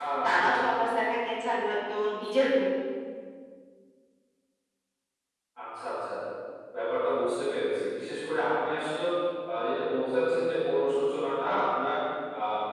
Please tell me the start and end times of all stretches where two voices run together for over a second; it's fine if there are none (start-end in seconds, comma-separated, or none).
none